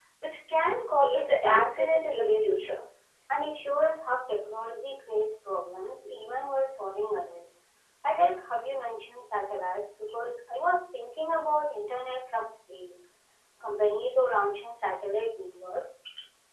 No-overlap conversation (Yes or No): No